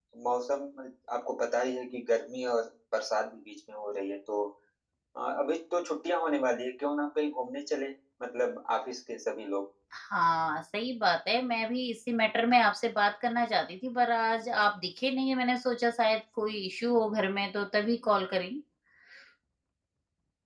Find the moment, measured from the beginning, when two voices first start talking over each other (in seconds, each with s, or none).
none